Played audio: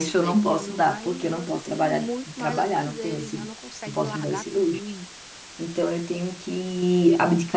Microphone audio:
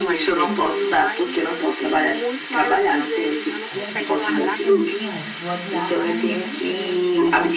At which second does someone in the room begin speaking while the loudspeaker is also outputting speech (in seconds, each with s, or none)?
3.7 s